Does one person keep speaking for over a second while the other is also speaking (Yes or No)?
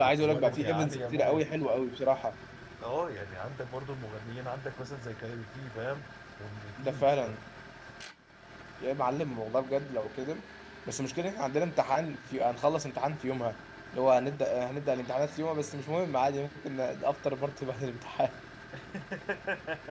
Yes